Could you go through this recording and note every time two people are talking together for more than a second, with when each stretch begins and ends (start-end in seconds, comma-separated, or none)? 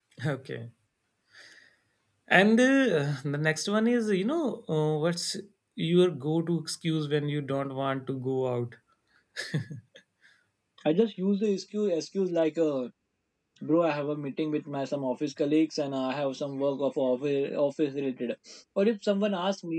none